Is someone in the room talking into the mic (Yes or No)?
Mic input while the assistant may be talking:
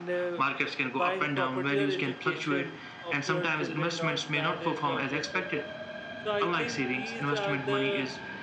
Yes